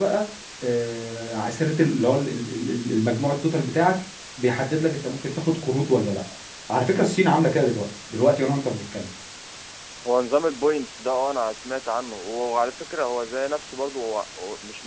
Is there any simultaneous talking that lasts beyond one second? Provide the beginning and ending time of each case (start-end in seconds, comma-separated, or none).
none